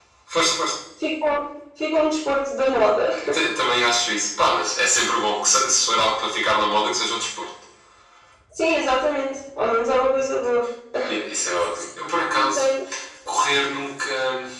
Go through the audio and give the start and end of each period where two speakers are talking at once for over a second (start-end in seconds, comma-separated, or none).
none